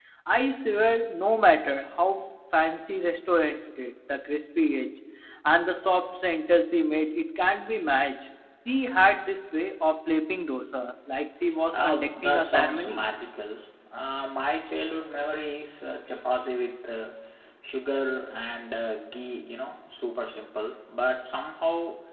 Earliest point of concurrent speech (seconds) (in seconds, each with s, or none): 11.7 s